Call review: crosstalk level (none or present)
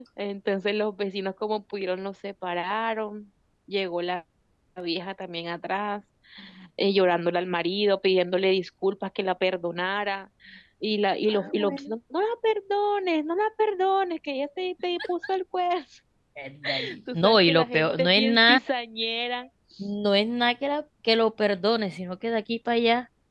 present